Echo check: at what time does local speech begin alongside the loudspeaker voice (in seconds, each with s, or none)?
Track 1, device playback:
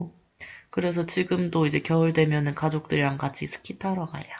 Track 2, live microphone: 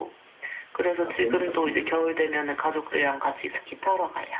1.0 s